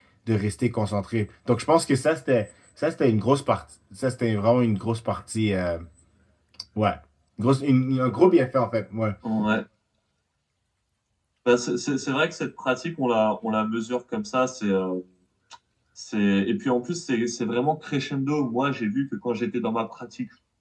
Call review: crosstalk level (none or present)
none